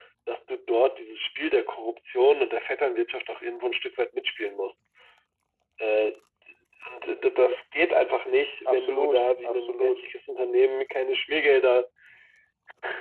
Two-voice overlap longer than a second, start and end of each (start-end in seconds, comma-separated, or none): 8.7-10.1